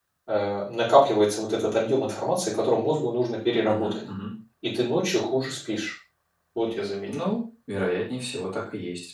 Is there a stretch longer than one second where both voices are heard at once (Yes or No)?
No